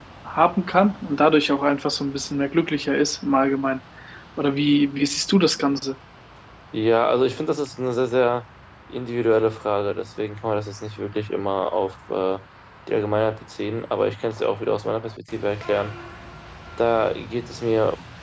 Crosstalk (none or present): none